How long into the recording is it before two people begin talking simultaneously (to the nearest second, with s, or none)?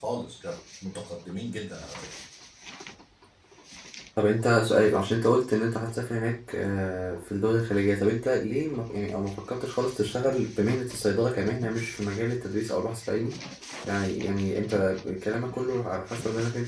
none